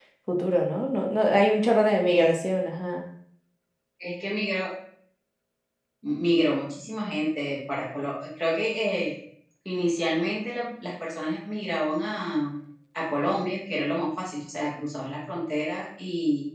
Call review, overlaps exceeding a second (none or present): none